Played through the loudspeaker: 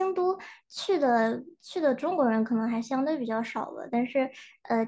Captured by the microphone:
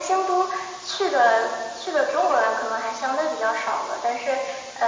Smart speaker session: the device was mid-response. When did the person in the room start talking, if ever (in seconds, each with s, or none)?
none